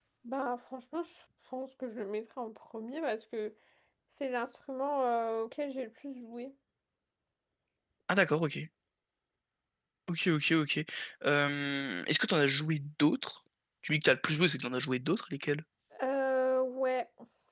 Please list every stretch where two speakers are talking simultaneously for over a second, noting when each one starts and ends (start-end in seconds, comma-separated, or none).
none